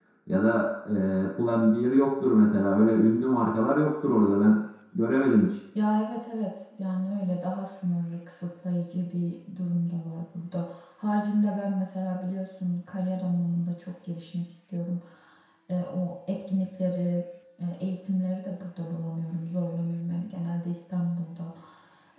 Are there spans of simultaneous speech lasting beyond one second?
No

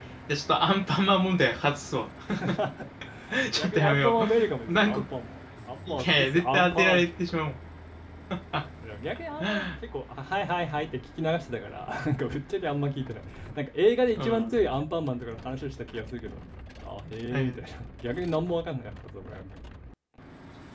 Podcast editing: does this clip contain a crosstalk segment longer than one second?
Yes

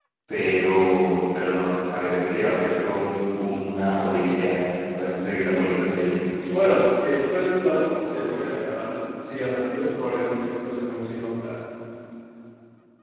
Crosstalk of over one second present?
No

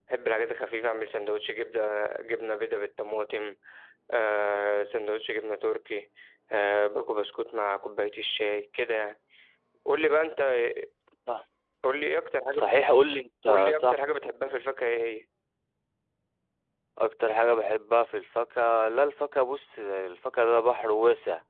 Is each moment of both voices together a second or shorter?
Yes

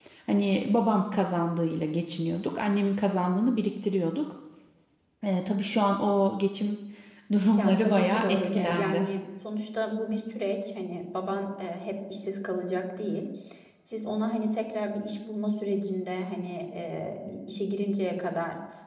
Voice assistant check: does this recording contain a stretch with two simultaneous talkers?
Yes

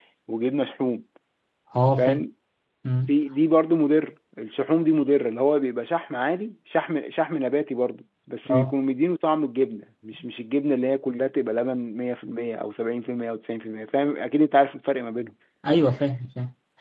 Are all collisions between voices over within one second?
Yes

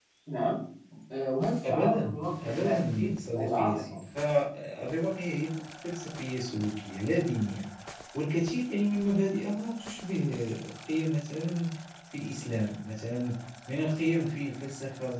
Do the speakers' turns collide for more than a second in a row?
Yes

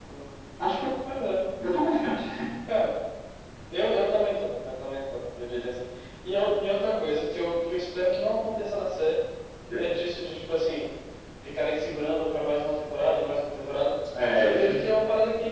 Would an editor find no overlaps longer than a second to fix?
Yes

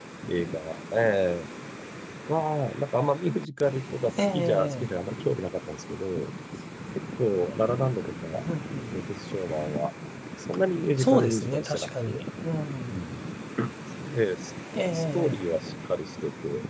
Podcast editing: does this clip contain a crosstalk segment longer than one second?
Yes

